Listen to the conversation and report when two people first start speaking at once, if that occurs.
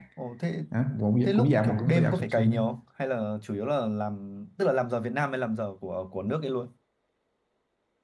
1 s

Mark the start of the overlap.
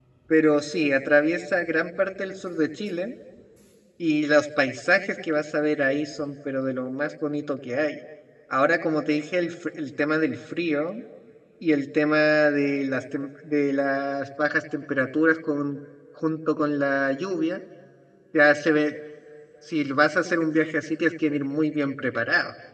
none

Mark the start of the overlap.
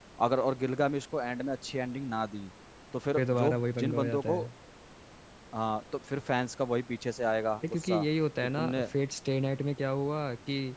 3 s

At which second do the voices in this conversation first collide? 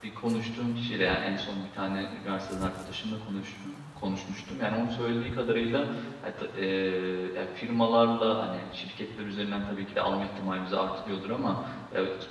none

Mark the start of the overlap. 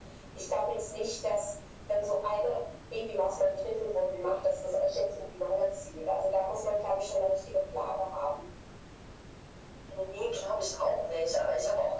none

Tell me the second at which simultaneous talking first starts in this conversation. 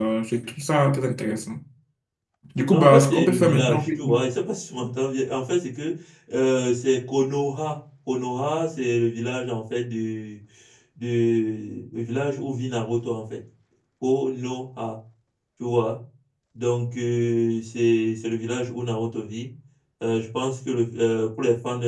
3 s

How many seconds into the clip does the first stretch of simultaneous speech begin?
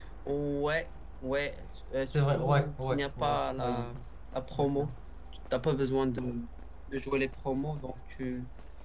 2 s

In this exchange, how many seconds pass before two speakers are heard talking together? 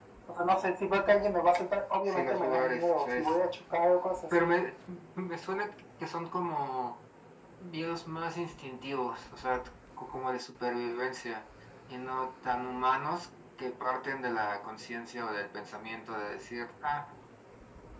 2 s

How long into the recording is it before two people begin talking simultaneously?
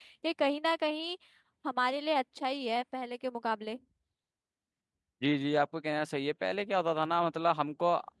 none

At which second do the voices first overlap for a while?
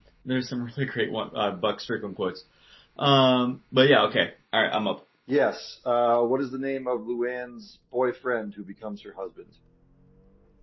none

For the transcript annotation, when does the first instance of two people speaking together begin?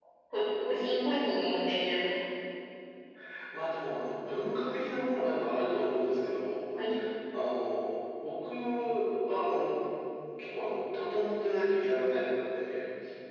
none

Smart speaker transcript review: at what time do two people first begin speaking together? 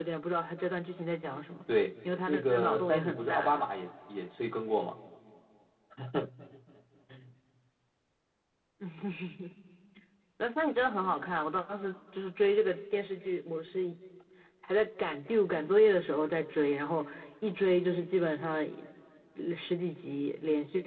2 s

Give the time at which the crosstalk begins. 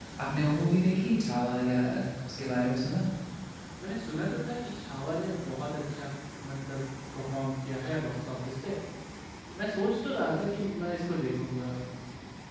none

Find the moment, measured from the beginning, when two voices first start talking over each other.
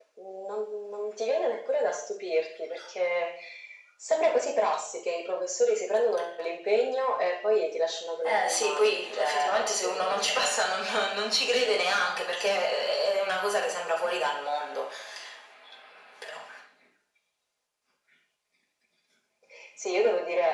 8 s

